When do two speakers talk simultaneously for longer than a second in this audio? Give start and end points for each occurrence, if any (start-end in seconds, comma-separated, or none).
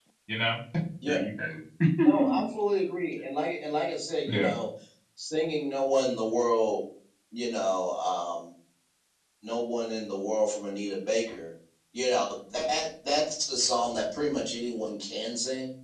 none